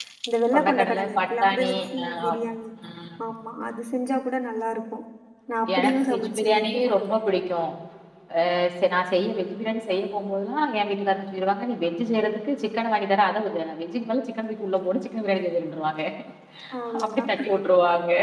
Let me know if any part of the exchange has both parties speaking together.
Yes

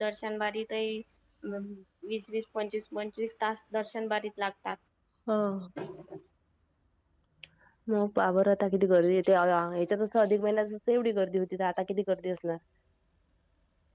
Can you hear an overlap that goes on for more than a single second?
No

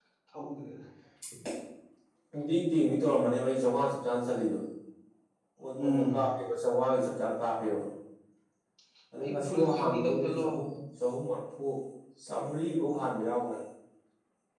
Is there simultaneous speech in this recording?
Yes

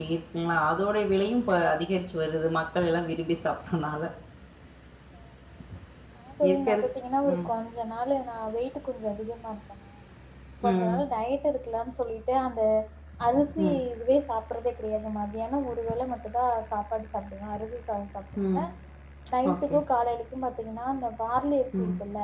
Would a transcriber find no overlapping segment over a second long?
Yes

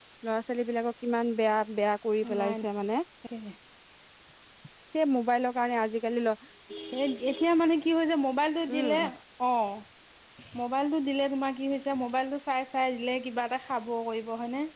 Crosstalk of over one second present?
No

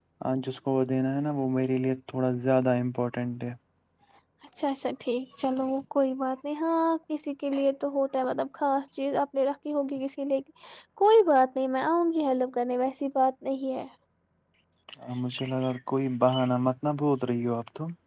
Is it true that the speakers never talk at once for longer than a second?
Yes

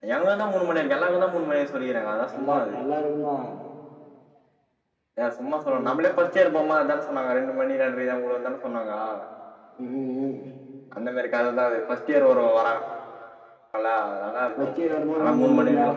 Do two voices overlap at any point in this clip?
Yes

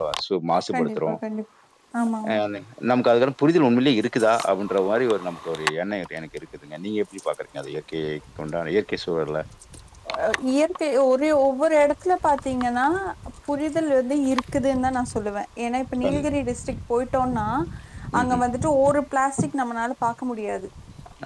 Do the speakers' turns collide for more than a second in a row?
No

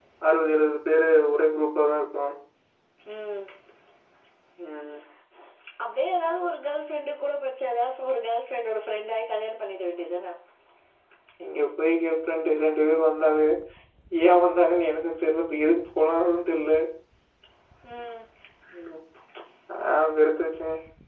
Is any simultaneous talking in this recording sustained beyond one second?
No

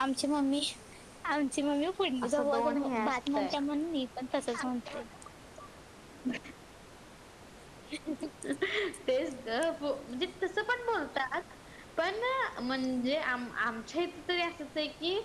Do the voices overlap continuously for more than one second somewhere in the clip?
Yes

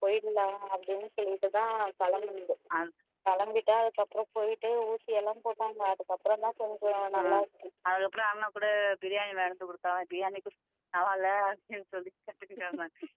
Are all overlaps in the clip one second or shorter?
Yes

